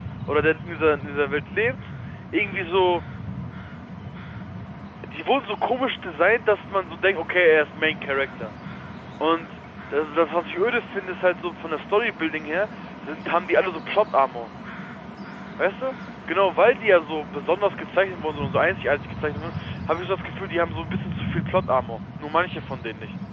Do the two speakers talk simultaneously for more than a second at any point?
No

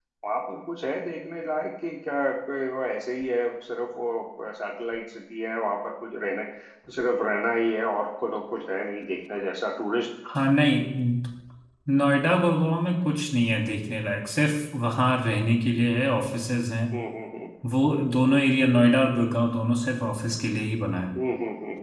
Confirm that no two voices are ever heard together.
Yes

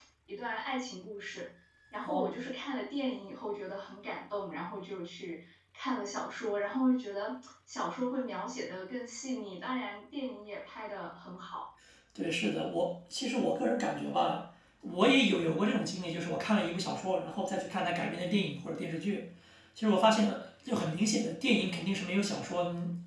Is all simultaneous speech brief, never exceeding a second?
Yes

